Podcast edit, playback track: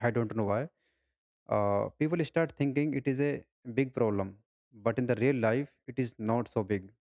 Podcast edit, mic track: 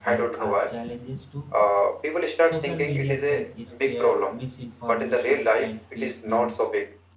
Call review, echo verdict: present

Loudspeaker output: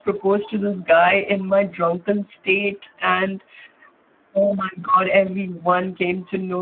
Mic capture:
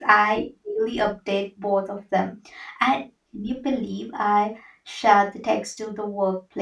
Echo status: none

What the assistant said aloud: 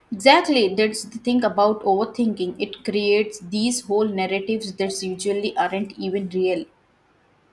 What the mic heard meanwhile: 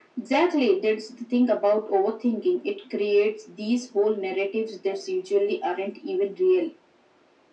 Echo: present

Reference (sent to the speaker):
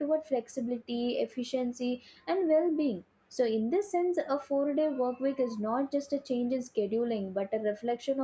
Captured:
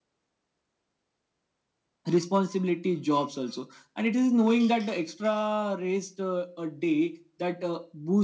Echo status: none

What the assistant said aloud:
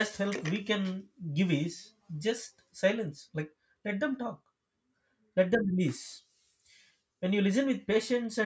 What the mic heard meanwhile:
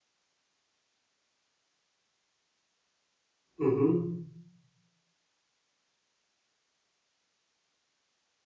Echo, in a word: none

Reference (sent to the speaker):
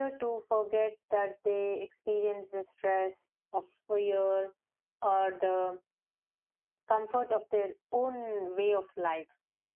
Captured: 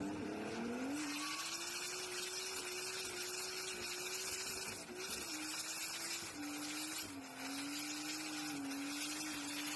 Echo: none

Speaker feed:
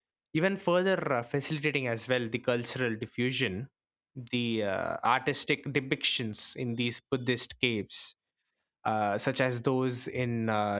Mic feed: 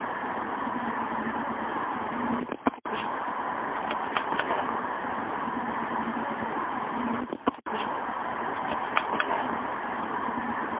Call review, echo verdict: none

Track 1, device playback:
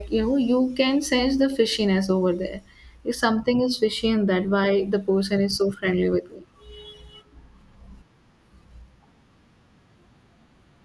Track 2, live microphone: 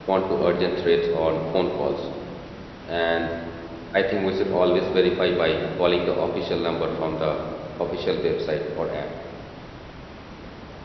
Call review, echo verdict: none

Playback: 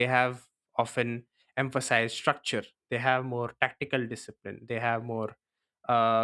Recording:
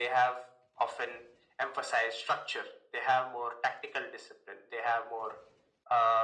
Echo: present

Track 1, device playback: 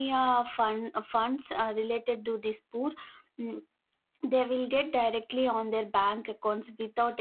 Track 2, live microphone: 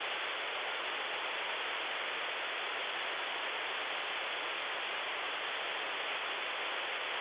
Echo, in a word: none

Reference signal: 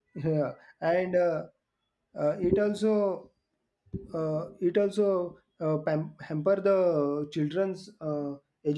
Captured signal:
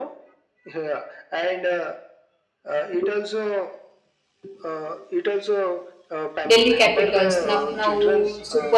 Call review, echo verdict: present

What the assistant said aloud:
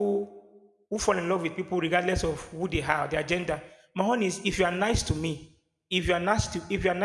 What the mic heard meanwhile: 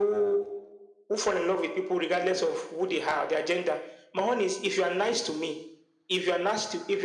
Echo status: present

